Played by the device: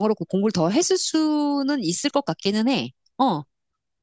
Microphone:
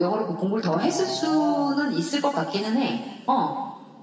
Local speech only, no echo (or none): 어,